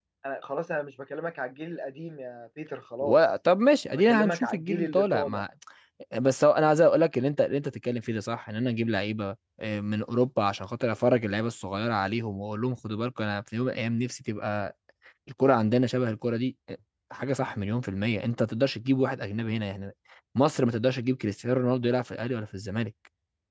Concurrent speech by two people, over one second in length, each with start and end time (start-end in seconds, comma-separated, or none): 3.9-5.4